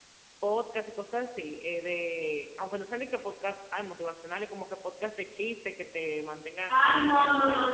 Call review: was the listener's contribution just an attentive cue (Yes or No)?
No